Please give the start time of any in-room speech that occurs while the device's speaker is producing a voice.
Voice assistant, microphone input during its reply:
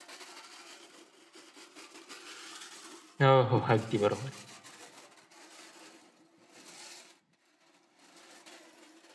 3.2 s

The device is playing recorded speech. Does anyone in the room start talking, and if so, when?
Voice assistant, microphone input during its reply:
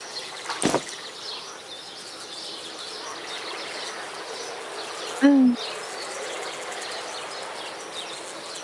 5.2 s

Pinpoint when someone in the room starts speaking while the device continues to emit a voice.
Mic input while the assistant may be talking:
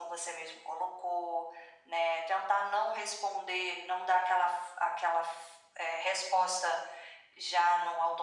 none

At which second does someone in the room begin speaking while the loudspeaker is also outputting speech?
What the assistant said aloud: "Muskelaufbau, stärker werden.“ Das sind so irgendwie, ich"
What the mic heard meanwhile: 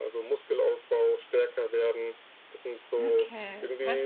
3.0 s

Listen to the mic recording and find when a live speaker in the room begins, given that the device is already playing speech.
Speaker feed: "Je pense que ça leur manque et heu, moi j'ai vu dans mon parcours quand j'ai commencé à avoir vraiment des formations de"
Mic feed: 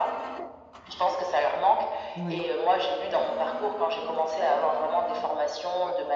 2.1 s

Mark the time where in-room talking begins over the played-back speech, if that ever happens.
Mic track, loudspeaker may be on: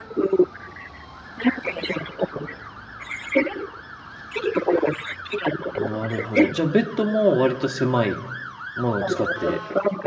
5.7 s

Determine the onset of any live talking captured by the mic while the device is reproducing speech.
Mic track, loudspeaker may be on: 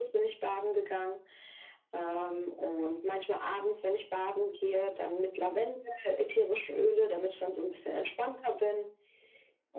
none

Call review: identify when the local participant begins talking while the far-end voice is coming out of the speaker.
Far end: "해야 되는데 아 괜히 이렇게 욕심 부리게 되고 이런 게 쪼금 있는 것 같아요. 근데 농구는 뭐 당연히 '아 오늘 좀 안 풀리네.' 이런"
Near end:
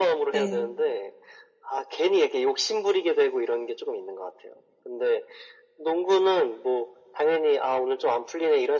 0.3 s

